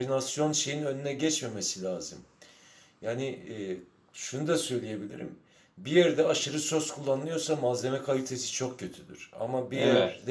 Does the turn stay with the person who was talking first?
Yes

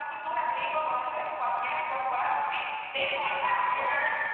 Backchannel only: No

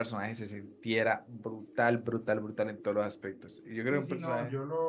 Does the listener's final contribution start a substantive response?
Yes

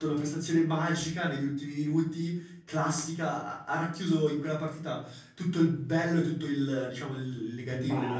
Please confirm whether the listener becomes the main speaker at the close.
No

